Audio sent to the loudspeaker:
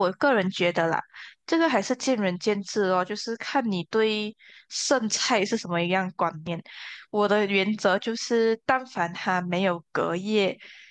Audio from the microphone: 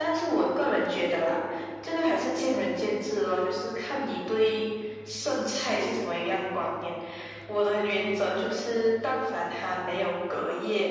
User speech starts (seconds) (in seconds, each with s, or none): none